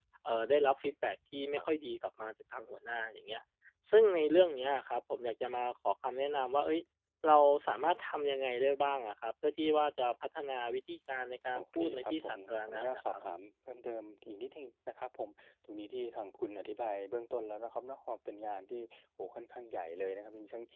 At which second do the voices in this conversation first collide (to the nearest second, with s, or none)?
12 s